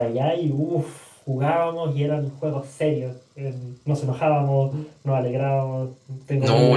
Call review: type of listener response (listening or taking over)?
taking over